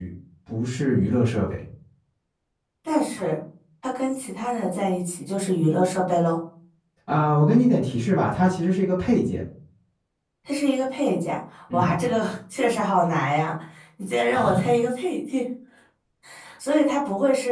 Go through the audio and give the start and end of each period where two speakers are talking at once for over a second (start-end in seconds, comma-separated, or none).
none